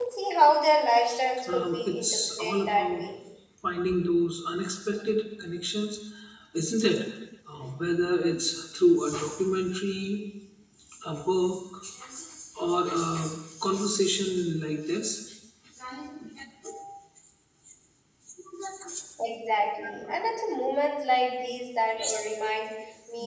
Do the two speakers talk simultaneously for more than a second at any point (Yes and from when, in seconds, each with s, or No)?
Yes, from 1.5 s